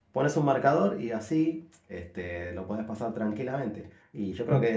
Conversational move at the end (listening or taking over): listening